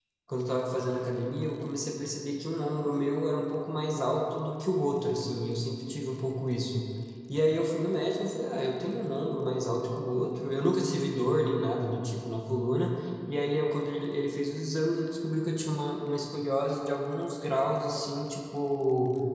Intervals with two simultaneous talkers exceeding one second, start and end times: none

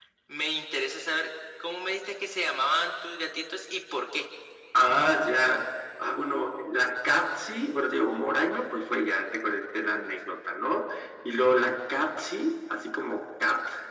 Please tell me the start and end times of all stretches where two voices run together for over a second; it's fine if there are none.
none

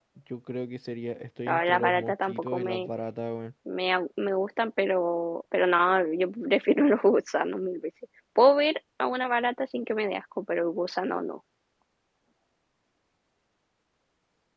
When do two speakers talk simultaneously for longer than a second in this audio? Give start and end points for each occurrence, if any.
1.5-2.9

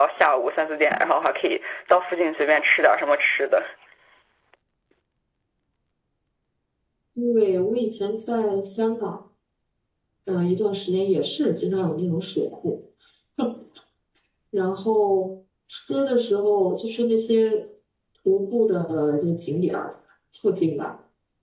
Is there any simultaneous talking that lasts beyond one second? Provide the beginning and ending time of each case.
none

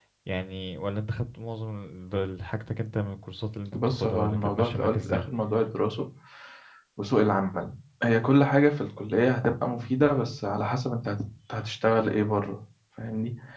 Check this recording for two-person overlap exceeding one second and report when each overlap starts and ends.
3.7-5.2

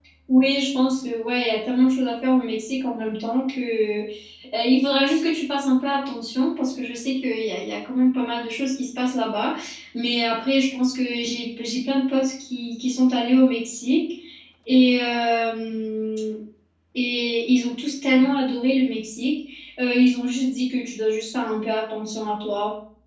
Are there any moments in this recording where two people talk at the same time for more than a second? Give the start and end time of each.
none

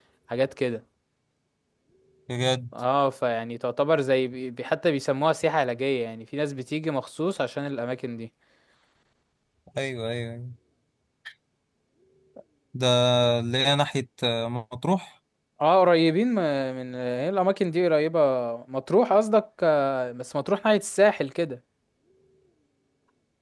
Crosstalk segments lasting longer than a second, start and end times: none

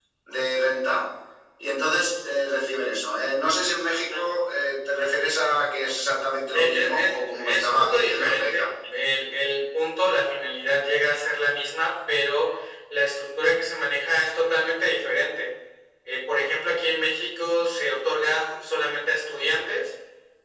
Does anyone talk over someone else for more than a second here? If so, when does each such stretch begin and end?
6.5-8.7

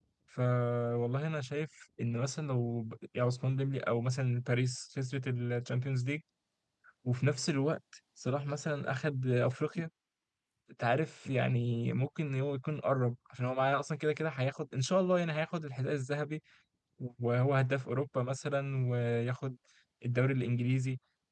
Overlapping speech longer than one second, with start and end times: none

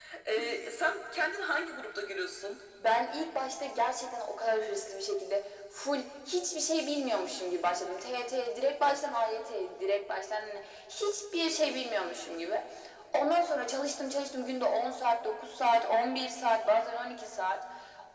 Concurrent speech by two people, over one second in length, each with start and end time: none

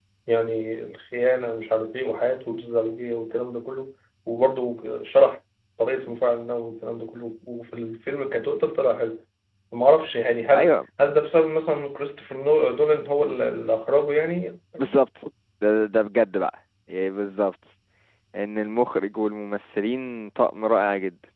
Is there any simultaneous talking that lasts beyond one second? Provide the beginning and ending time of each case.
none

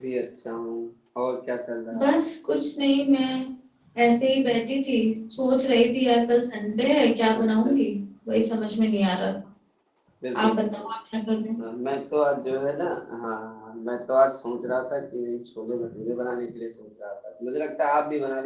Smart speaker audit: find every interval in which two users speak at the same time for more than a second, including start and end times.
none

